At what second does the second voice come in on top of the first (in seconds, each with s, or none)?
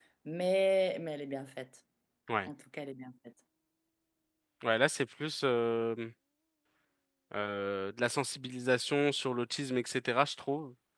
none